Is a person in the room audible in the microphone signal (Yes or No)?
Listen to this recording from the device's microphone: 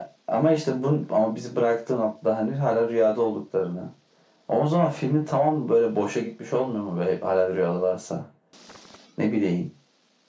No